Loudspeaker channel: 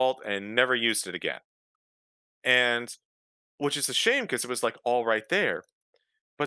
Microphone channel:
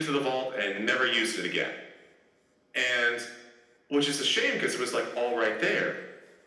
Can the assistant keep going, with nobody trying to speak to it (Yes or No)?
Yes